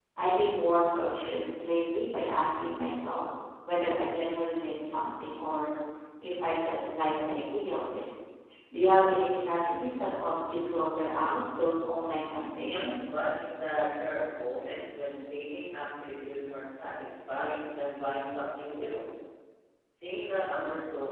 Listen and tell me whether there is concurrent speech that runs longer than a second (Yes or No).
No